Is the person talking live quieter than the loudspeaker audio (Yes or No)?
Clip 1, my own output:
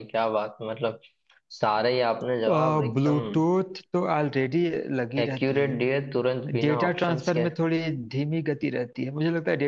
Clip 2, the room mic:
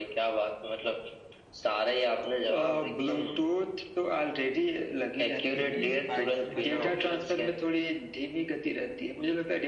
Yes